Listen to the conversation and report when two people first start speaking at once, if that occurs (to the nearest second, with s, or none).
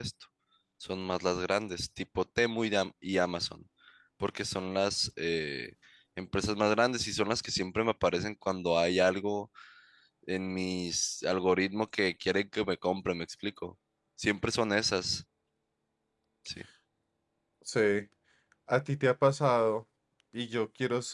none